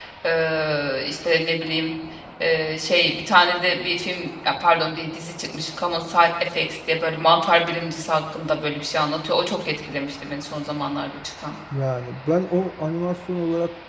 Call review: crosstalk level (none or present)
none